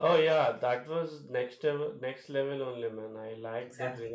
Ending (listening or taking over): taking over